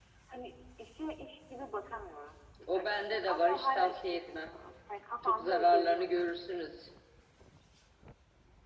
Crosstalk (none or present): present